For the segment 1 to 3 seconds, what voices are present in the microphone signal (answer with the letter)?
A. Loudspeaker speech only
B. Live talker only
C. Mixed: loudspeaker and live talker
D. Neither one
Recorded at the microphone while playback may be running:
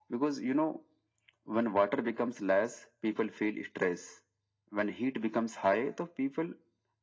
A